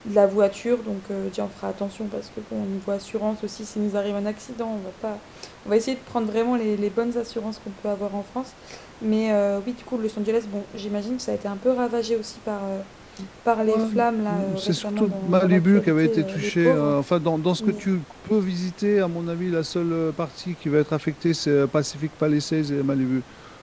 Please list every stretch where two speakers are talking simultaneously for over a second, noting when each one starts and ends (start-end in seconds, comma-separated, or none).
14.6-16.9